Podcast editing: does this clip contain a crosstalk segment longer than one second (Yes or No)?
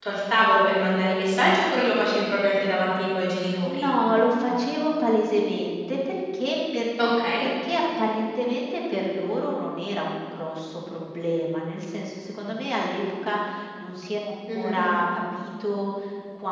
No